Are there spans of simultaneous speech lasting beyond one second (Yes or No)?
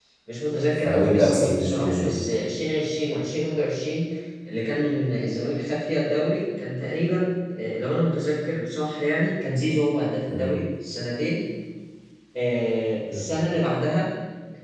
Yes